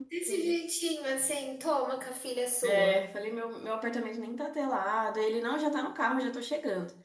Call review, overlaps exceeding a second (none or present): none